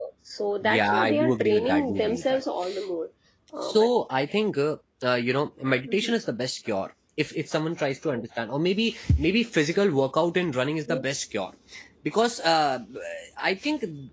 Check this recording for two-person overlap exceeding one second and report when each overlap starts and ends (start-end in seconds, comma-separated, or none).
0.6-2.4